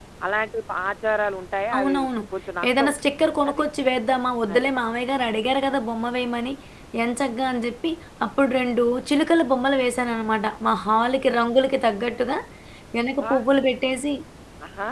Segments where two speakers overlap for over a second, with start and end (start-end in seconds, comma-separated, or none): none